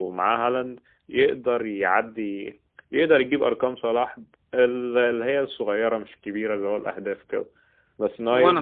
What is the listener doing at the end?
listening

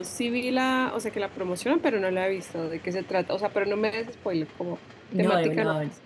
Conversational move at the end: taking over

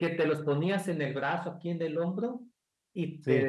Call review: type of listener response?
listening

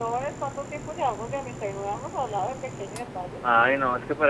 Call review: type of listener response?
taking over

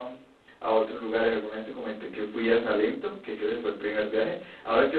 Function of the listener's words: listening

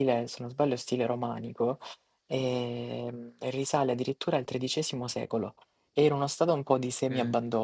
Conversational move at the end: listening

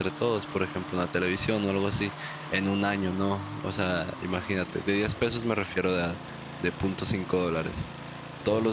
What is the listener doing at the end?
listening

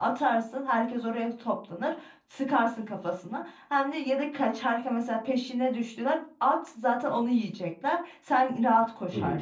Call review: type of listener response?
taking over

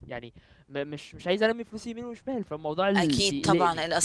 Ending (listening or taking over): taking over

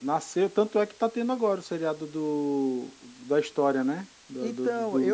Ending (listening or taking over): taking over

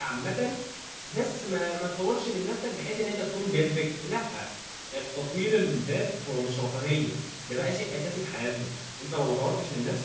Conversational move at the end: listening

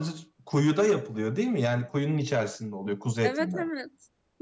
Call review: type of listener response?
taking over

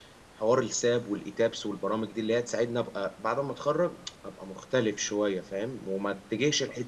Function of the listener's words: listening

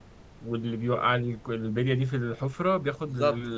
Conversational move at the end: taking over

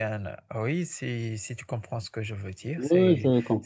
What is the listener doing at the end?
taking over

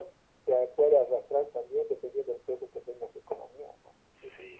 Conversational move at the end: taking over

